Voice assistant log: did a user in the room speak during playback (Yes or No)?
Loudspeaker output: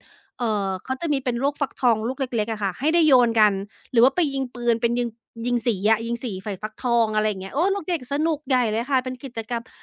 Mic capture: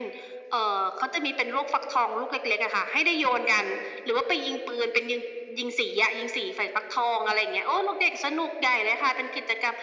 No